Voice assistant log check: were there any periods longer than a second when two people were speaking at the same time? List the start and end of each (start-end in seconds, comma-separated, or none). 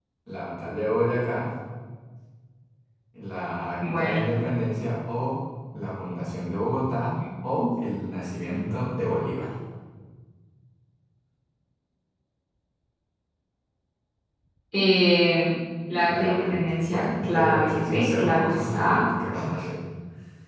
16.1-19.1